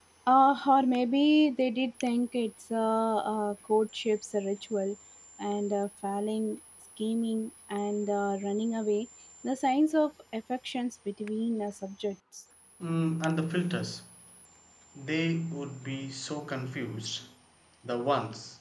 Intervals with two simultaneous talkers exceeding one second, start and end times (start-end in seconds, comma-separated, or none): none